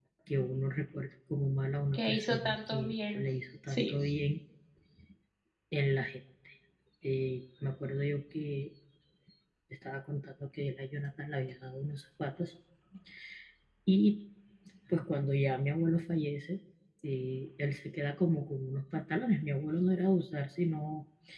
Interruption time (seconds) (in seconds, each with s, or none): 1.9 s